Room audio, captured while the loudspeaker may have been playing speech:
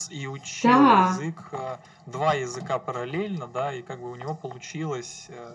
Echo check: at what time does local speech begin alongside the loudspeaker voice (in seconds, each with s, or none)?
0.6 s